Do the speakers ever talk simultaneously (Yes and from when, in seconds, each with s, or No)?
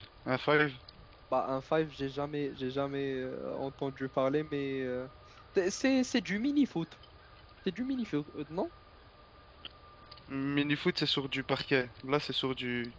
No